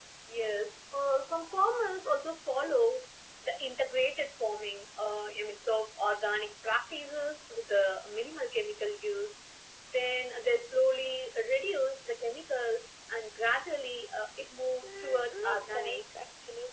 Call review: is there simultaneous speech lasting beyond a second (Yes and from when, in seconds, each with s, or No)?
Yes, from 14.8 s